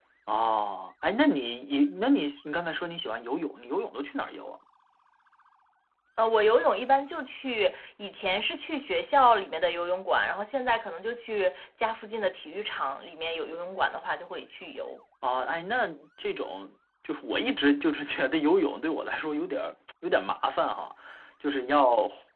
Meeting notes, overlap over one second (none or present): none